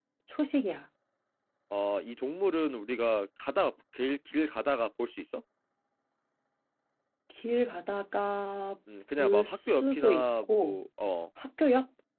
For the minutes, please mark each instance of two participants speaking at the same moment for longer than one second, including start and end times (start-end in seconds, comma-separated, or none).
9.2-10.8